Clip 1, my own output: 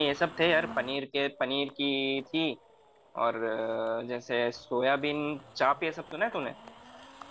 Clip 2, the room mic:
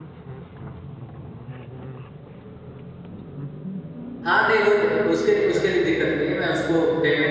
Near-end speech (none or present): present